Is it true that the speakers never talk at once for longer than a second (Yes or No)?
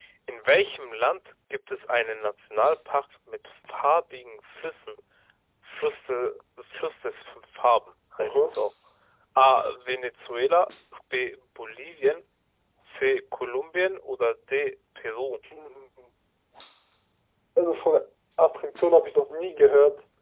Yes